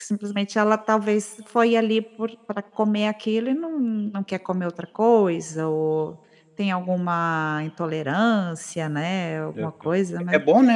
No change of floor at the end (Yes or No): No